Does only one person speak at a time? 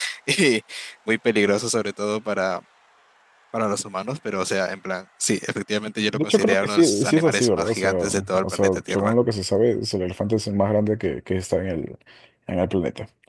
No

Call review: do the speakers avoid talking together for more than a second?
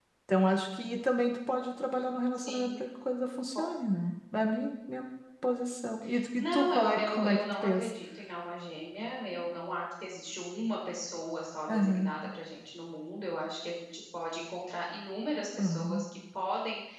No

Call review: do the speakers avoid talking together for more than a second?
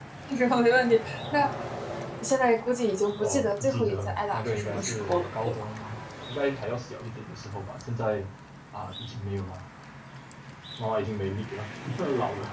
No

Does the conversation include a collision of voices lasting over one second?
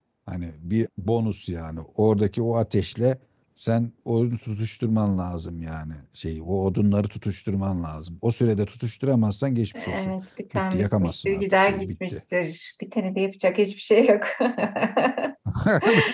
Yes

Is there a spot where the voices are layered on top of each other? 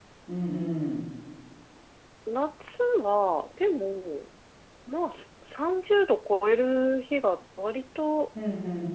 No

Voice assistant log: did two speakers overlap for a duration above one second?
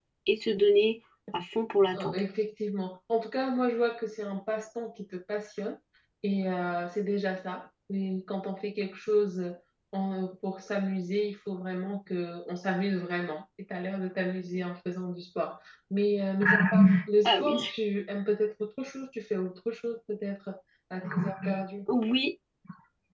No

